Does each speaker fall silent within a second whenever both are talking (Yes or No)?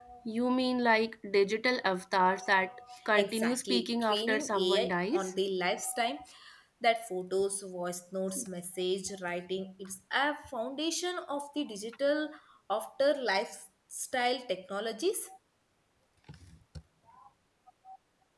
No